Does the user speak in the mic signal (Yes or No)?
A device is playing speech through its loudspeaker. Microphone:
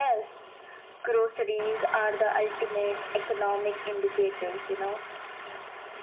No